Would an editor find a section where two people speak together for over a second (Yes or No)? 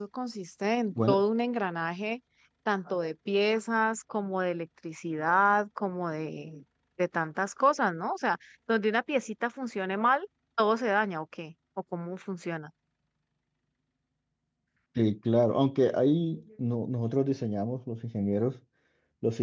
No